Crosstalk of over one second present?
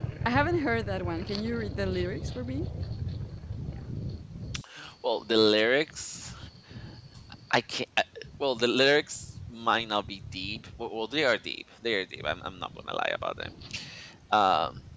No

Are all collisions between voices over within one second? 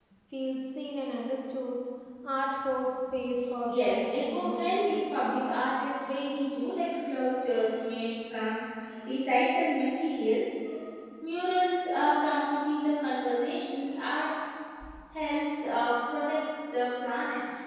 No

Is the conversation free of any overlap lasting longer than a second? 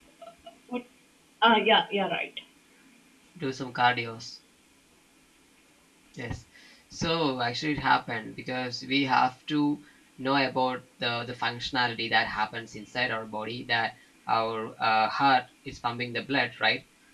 Yes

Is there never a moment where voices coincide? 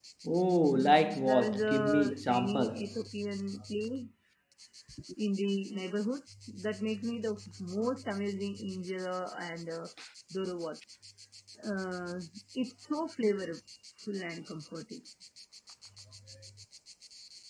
No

